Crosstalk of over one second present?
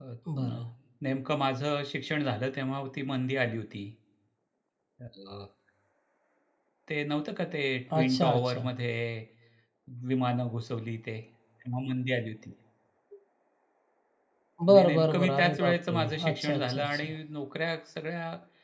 Yes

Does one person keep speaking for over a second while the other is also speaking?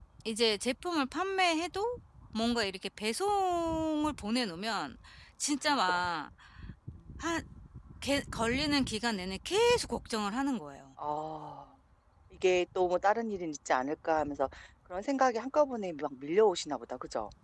No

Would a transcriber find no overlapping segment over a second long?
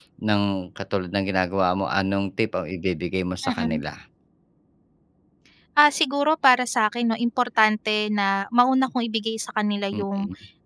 Yes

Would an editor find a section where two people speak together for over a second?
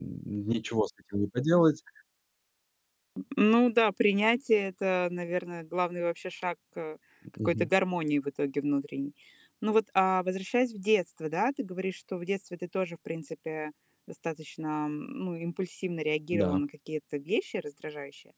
No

